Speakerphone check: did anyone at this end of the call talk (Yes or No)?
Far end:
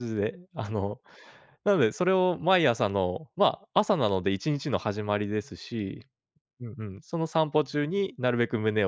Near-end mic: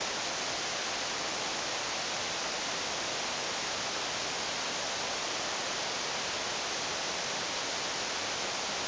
No